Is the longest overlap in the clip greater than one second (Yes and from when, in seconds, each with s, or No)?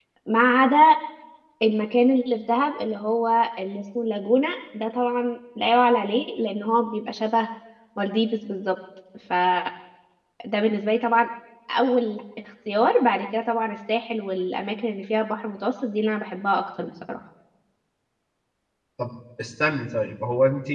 No